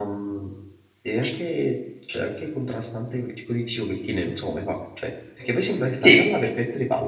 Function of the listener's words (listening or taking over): listening